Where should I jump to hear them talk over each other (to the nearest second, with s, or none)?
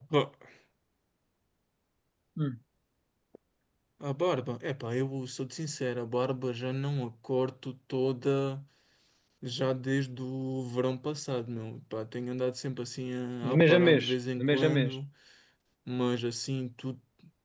13 s